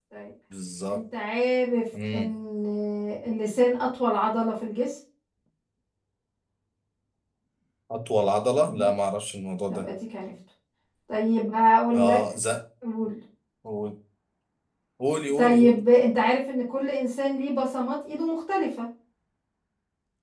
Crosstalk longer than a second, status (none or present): none